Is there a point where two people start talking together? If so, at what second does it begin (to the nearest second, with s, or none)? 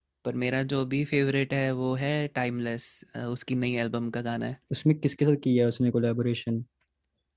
none